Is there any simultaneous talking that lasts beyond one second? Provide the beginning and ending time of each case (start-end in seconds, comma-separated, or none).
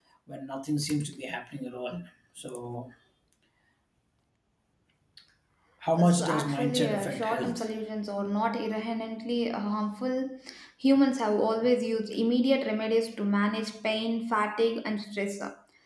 6.0-7.7